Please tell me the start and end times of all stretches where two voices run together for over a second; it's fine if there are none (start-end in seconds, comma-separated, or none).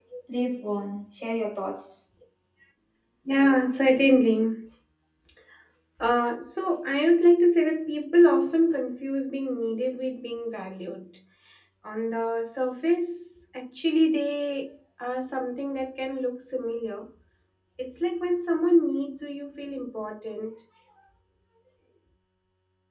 none